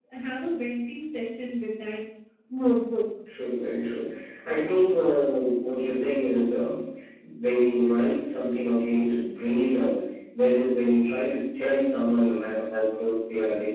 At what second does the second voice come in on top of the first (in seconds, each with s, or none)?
none